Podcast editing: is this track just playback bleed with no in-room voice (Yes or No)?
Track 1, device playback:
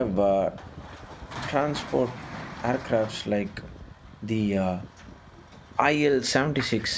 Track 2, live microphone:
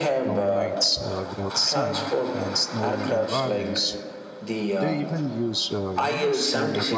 No